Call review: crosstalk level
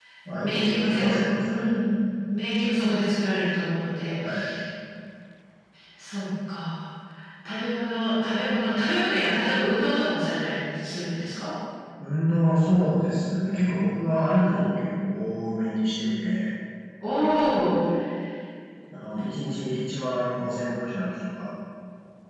present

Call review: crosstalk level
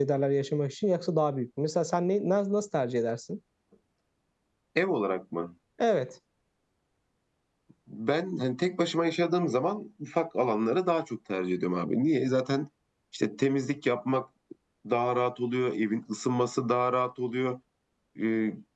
none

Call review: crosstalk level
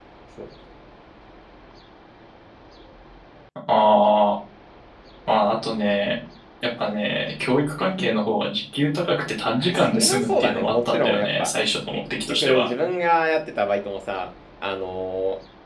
present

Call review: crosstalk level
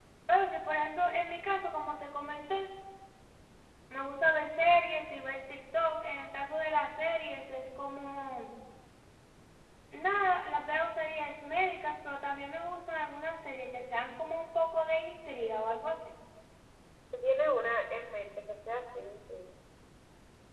none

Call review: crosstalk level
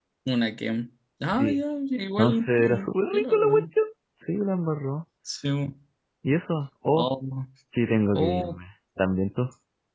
present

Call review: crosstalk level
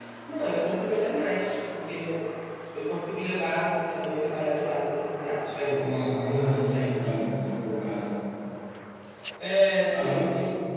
present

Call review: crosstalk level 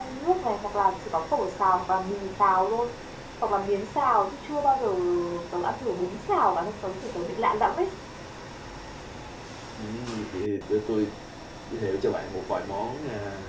none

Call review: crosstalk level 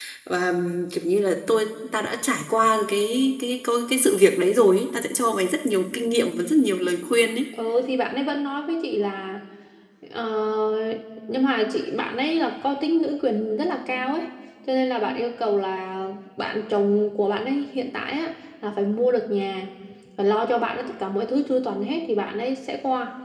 none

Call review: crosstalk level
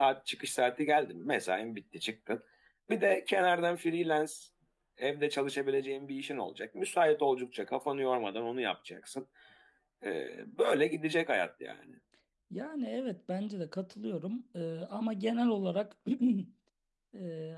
none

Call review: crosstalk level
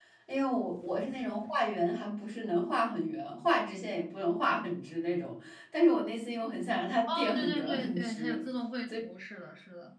present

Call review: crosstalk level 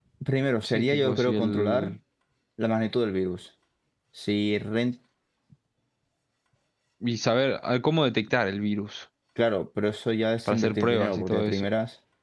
present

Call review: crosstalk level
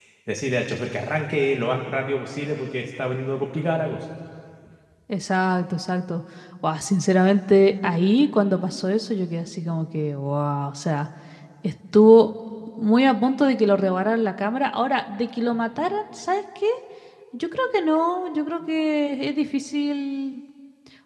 none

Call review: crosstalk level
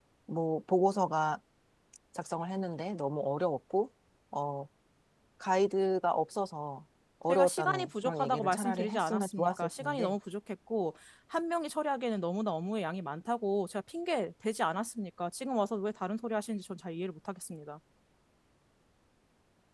present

